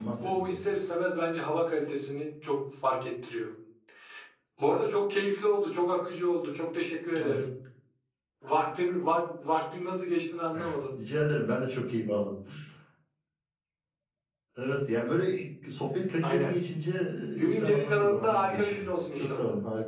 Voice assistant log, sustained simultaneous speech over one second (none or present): present